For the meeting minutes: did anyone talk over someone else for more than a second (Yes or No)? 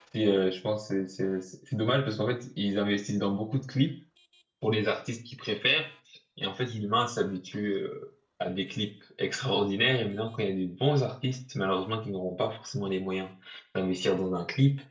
No